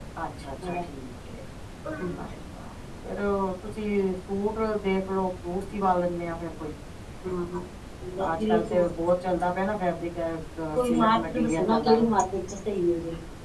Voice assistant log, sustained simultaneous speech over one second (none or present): present